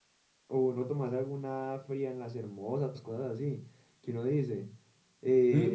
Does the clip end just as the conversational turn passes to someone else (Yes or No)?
Yes